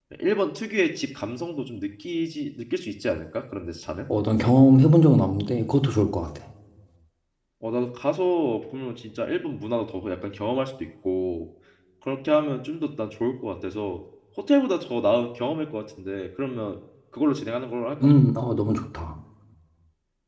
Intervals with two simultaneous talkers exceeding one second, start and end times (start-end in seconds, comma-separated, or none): none